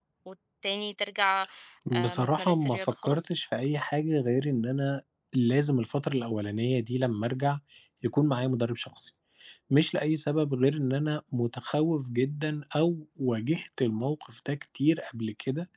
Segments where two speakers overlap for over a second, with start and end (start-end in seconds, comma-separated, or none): 1.9-3.3